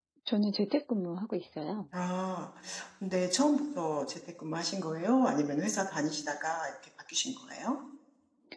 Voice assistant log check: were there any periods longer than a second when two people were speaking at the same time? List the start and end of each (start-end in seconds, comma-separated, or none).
none